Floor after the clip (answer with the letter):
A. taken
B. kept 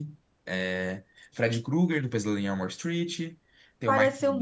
A